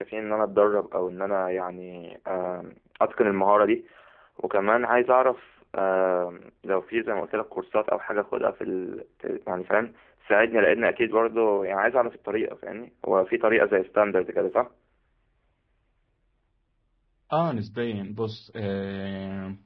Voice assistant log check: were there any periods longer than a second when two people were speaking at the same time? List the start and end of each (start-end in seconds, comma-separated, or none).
none